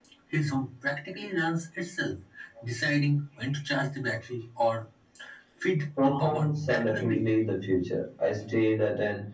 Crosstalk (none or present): present